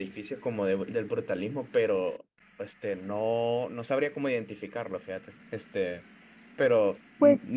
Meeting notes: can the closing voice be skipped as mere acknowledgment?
Yes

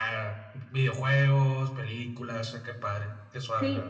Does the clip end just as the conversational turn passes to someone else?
Yes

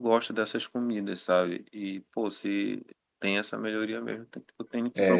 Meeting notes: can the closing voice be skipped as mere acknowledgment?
No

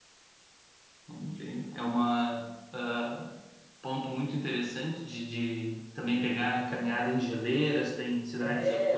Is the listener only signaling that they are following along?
No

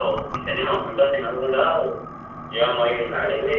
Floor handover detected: No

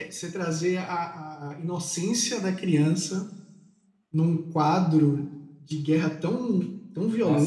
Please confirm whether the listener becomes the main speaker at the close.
Yes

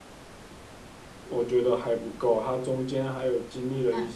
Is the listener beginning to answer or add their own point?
Yes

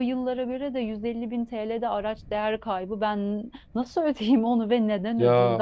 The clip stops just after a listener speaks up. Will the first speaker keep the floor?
No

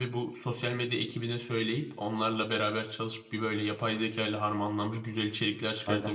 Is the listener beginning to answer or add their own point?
Yes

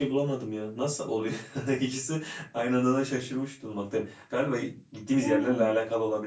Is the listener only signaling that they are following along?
Yes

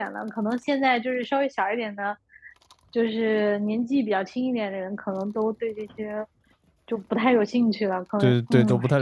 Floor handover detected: Yes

